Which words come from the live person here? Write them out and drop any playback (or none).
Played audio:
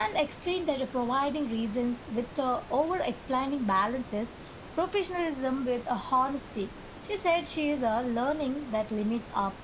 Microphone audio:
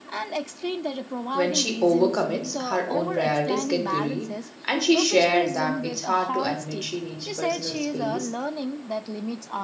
When she overcommits, her own priorities get buried, and she shared that it's hard to admit she needs personal space,